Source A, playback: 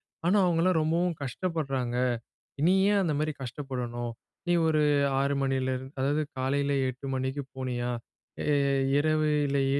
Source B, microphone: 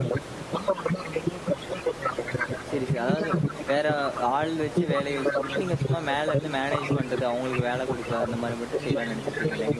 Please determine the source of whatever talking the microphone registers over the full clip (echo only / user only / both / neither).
both